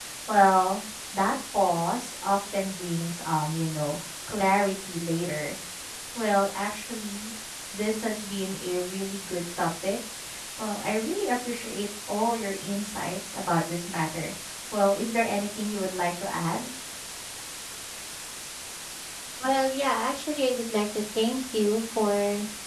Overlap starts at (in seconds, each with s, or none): none